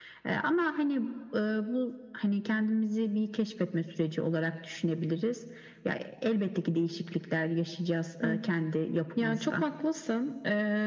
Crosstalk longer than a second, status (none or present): none